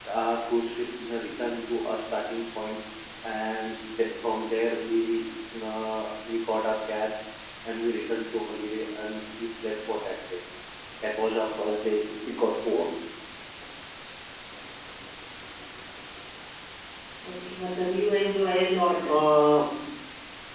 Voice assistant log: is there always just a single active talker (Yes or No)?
Yes